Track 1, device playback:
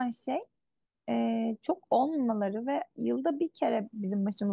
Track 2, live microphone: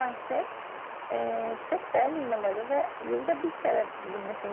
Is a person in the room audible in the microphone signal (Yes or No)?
No